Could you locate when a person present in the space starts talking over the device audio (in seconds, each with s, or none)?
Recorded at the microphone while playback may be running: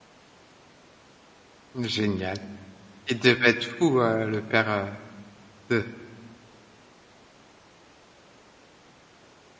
1.8 s